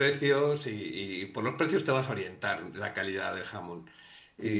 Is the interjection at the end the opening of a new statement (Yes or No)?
Yes